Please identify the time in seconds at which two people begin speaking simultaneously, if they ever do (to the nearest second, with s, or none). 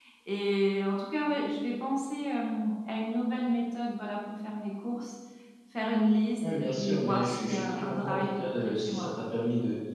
7 s